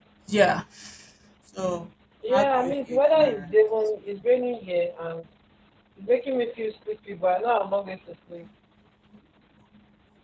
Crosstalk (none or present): present